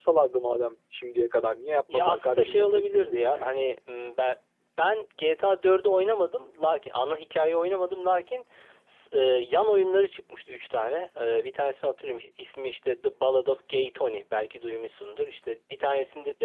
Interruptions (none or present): present